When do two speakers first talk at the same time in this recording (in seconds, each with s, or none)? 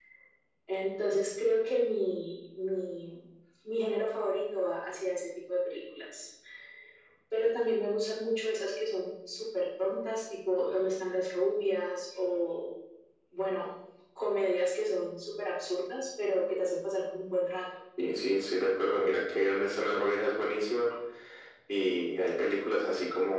none